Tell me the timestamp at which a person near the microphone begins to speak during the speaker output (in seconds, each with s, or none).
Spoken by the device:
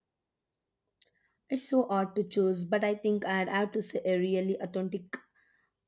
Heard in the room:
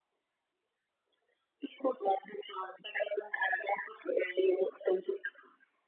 none